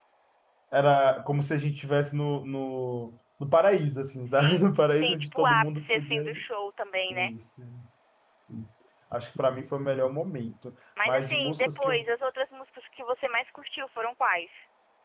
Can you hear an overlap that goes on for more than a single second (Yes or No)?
Yes